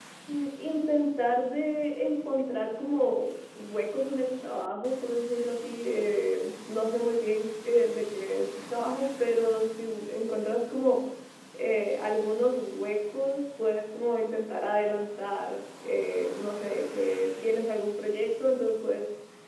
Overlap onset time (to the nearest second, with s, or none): none